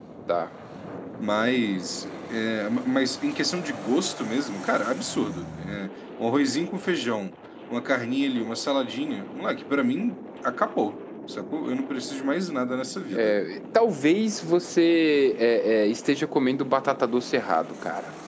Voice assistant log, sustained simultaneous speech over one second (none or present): none